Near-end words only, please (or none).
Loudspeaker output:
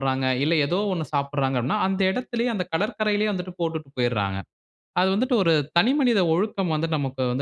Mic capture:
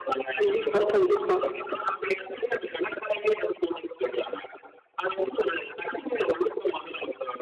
கண்டிப்பா, கண்டிப்பா.